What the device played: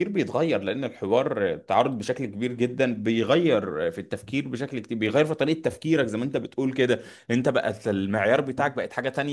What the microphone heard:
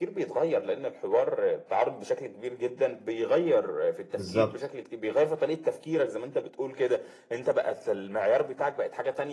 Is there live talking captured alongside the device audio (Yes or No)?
Yes